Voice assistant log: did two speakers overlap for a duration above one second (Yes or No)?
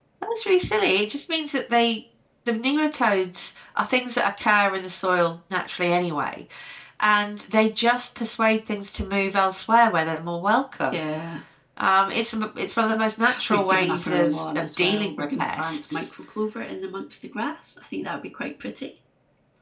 Yes